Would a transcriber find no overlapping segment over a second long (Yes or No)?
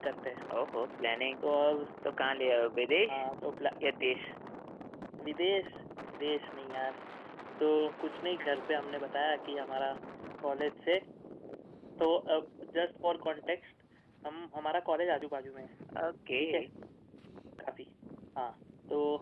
Yes